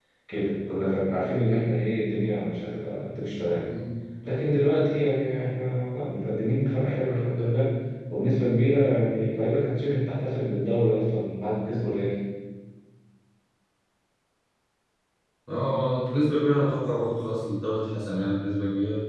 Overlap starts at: none

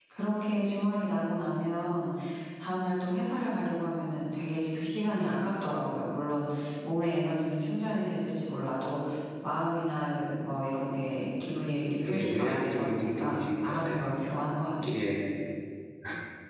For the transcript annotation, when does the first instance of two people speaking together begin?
12.0 s

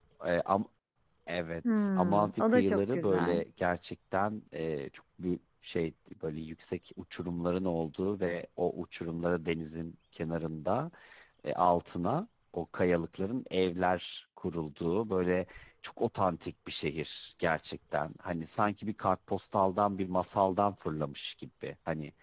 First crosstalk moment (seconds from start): 1.8 s

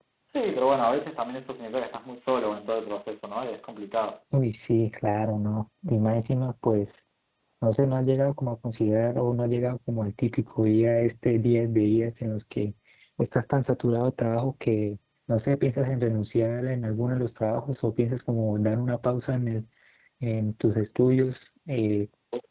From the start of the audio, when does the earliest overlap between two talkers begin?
none

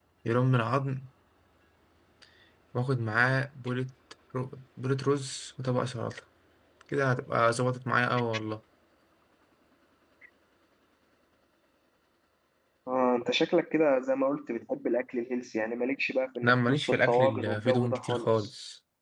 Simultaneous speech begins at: 16.4 s

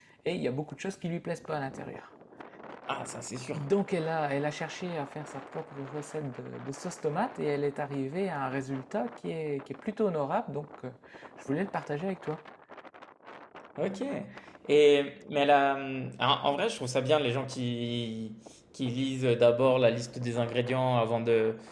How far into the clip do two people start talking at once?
none

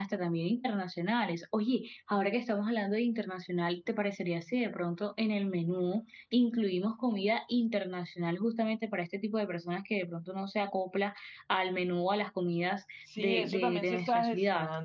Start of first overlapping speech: 13.0 s

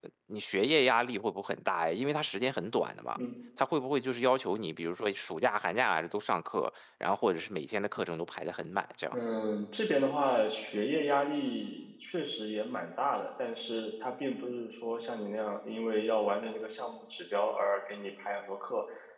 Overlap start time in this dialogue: none

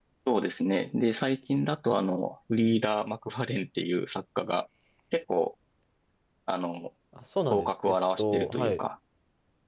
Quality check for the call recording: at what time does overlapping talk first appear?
7.5 s

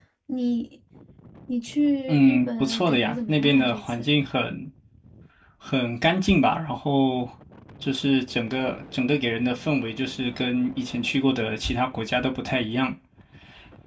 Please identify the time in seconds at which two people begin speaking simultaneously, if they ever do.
2.1 s

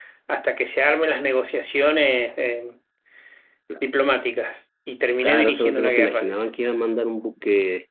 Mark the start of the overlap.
5.2 s

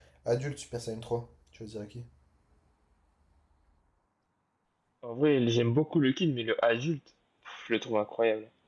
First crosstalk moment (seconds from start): none

